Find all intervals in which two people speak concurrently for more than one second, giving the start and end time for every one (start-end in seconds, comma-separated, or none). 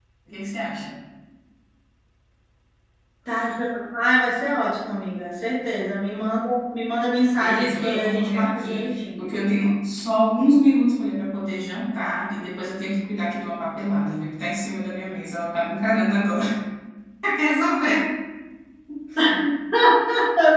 7.3-9.2